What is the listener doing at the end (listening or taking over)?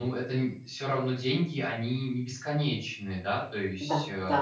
taking over